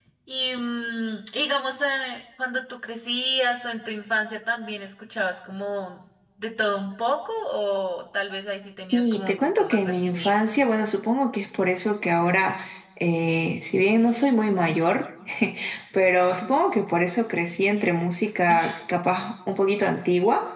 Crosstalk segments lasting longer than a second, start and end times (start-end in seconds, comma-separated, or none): 8.9-10.4